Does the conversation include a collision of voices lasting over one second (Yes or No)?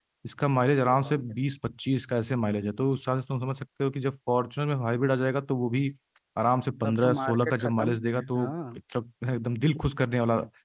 Yes